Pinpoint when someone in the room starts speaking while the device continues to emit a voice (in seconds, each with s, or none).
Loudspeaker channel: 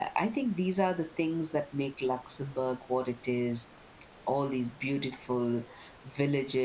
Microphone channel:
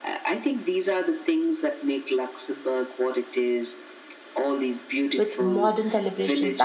5.2 s